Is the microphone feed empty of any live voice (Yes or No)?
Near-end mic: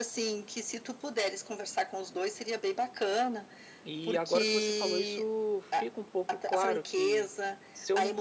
No